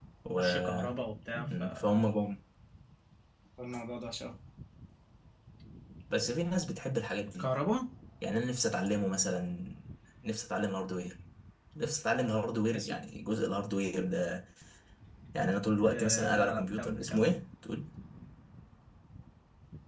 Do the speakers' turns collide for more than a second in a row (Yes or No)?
Yes